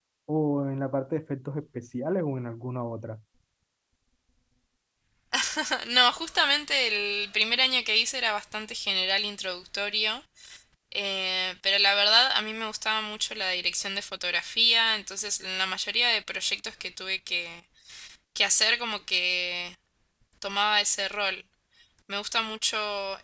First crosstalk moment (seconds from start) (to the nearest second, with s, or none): none